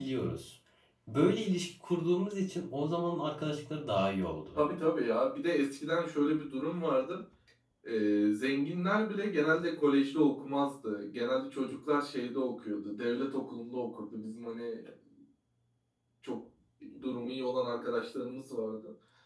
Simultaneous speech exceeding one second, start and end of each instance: none

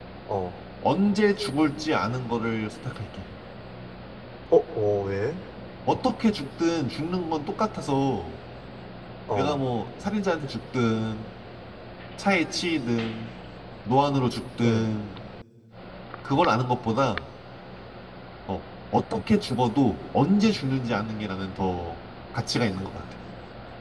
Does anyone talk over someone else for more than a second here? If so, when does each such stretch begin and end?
none

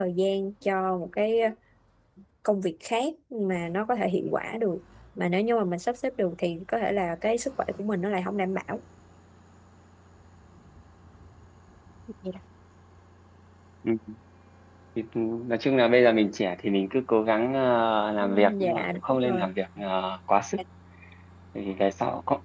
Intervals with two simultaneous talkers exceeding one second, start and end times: 18.2-19.5

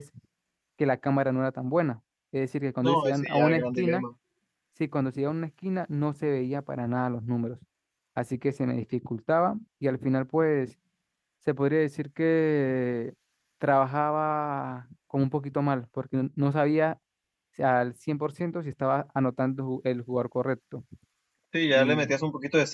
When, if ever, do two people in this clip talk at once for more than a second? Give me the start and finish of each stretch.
2.8-4.0

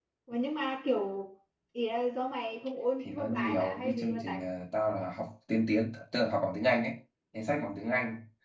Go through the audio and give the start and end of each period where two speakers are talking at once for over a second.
3.0-4.4

